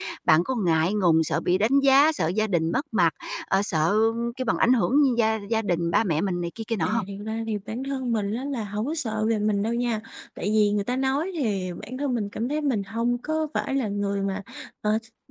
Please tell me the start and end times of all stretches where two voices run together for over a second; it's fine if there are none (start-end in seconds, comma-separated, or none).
none